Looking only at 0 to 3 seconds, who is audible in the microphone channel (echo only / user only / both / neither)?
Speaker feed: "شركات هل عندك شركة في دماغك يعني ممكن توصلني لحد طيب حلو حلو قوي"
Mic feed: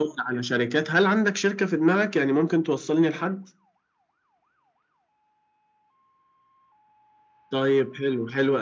echo only